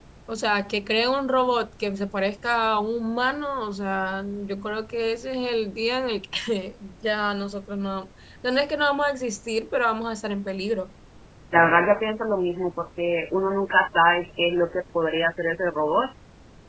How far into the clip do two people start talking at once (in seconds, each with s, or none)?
none